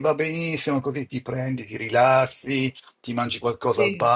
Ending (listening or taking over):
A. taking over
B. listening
B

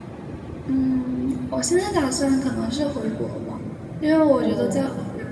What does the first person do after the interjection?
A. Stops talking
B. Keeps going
B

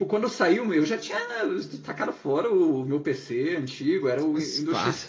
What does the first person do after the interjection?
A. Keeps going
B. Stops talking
A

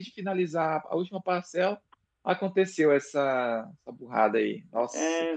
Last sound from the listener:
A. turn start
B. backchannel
A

